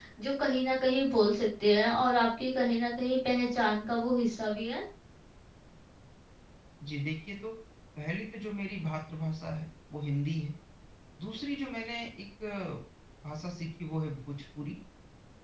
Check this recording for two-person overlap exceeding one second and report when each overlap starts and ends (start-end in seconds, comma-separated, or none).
none